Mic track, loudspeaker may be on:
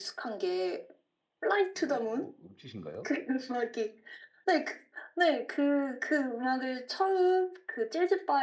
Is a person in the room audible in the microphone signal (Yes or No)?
Yes